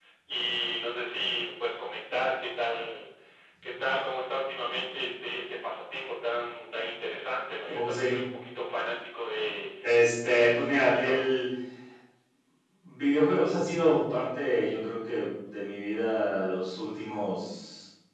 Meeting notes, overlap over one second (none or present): present